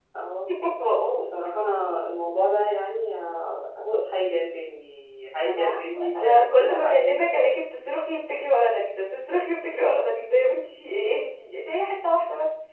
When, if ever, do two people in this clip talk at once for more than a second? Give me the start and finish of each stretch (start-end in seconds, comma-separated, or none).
5.4-7.1